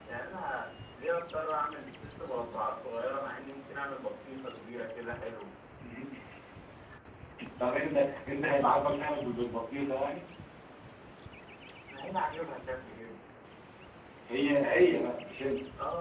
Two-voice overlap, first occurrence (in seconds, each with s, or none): none